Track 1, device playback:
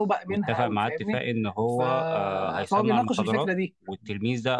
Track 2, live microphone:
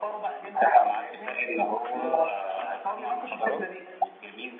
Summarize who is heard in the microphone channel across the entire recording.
echo only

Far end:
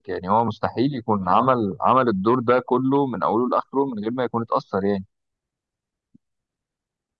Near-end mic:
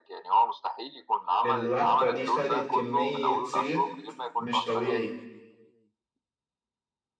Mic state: both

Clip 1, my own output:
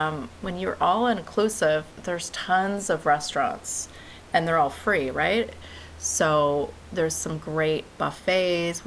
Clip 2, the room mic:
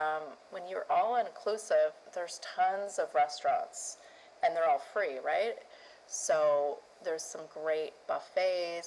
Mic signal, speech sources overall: echo only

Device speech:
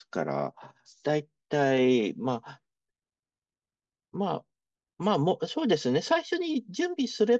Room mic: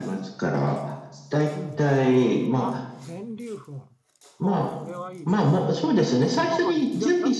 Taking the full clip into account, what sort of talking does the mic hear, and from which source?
both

